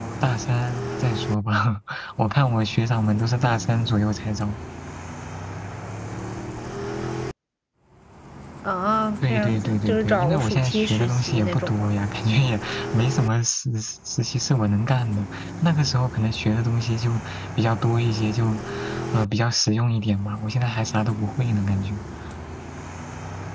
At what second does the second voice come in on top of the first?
9.2 s

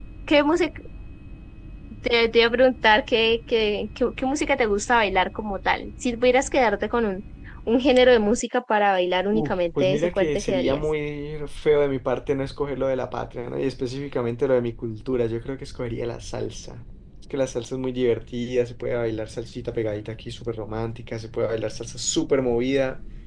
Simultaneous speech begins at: 9.3 s

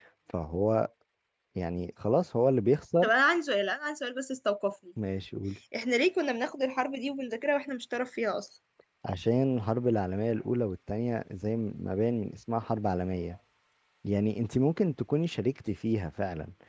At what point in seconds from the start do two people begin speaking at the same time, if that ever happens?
none

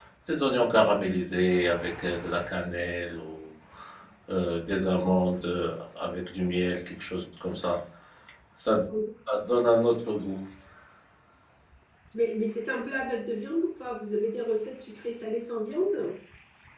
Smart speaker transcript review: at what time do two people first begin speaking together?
none

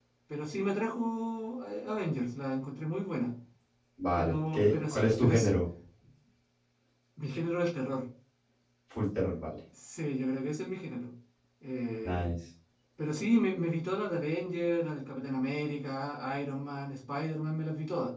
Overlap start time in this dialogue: 4.2 s

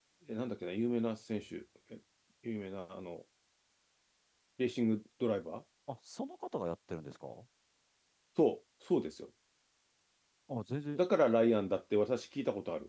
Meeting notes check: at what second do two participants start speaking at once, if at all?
none

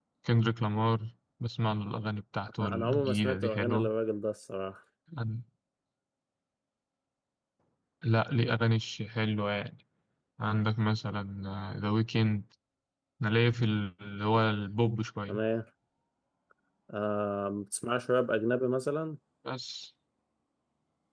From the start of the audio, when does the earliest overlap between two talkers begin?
2.6 s

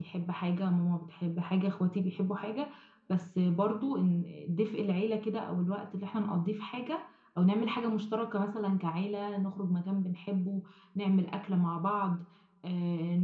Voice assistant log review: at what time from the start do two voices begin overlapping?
none

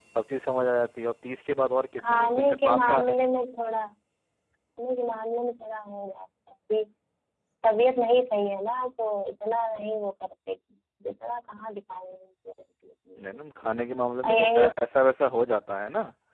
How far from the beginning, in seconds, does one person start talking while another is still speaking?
2.0 s

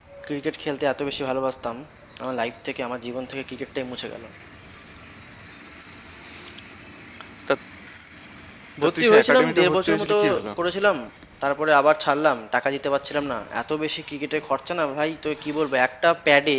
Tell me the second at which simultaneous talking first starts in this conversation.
8.8 s

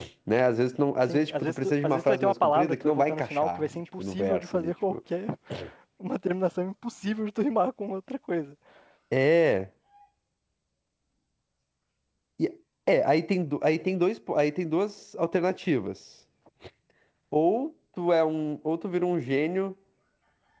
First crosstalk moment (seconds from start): 1.1 s

